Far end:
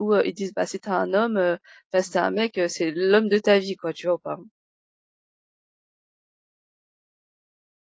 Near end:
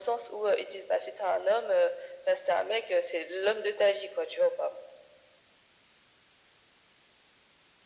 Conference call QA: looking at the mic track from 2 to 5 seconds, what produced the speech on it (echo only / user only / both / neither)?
echo only